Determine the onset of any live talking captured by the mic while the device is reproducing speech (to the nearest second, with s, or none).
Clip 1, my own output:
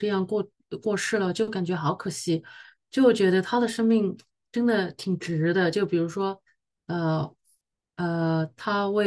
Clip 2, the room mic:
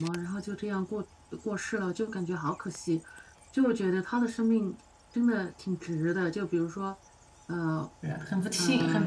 8 s